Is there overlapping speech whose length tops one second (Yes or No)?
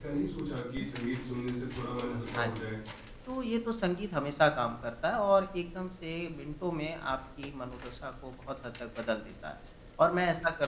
No